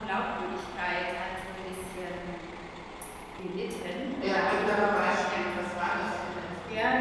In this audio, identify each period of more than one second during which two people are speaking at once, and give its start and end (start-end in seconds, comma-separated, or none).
4.2-5.5